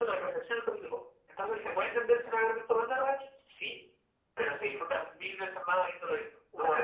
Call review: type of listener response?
taking over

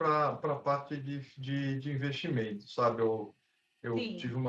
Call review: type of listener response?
listening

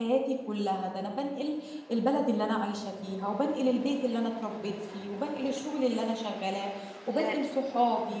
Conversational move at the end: listening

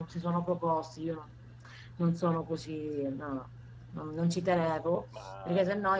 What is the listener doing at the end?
listening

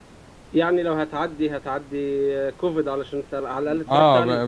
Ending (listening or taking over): taking over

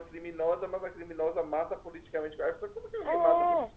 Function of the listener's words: taking over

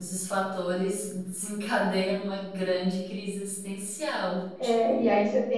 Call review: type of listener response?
taking over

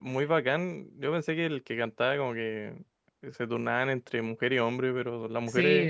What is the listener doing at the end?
taking over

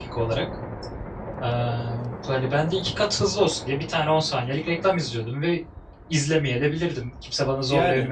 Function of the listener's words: taking over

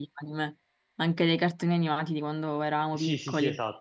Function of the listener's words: taking over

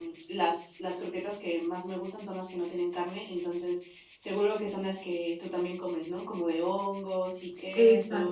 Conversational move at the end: taking over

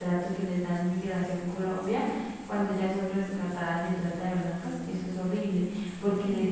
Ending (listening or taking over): listening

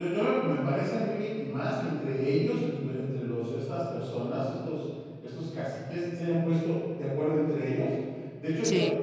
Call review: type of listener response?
listening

